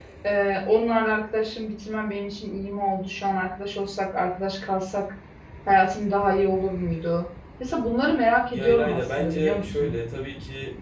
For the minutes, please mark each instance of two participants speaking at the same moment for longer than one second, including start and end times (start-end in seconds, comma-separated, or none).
8.5-10.0